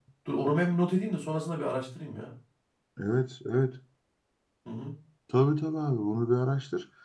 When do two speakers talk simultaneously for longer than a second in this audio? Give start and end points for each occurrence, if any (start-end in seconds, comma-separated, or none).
none